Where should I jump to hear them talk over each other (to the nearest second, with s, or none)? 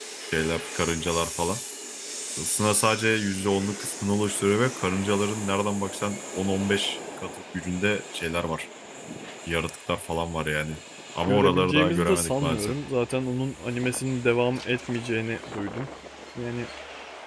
11 s